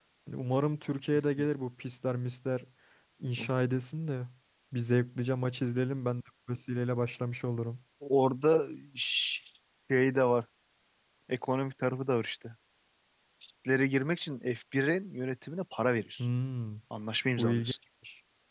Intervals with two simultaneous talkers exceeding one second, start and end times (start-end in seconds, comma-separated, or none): none